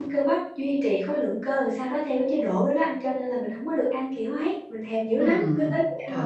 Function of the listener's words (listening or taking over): taking over